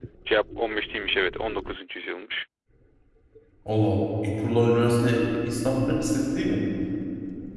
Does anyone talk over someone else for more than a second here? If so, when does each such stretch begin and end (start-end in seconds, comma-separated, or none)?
none